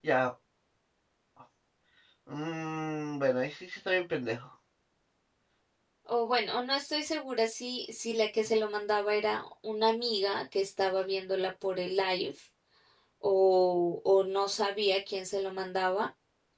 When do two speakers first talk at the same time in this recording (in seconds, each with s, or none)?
none